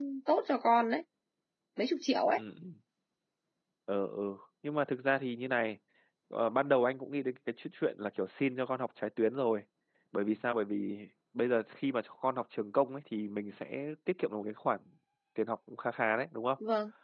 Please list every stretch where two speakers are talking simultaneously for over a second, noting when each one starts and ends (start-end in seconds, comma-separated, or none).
none